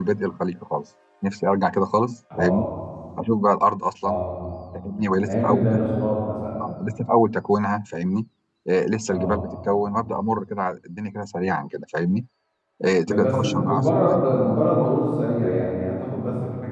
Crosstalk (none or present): present